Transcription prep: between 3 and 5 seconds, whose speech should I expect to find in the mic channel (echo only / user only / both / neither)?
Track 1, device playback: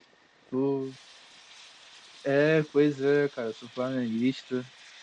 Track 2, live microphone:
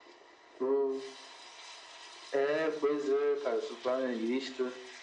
echo only